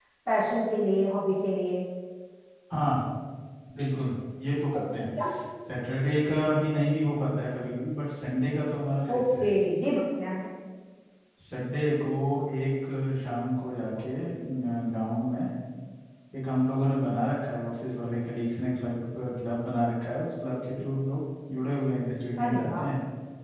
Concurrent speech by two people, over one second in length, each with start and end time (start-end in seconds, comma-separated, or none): none